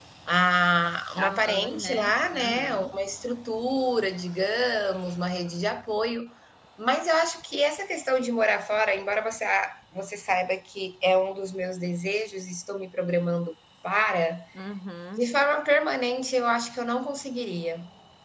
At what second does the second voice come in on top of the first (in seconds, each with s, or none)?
1.2 s